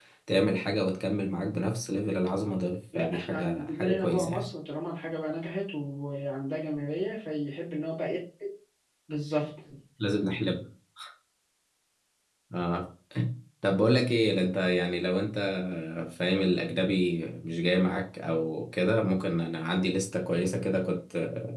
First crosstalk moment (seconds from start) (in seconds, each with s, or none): 2.9 s